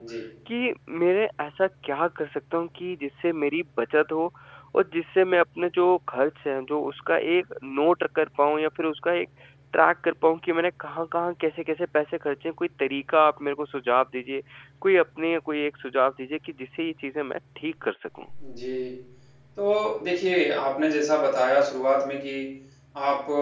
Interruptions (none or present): none